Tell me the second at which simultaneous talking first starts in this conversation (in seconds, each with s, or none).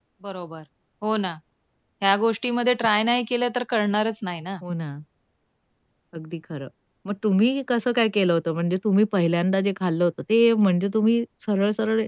none